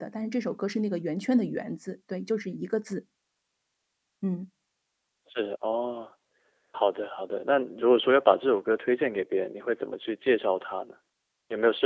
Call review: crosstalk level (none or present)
none